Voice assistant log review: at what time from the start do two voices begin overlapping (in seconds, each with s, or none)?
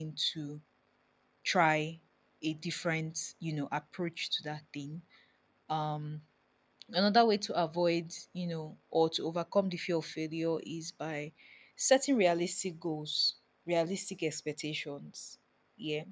none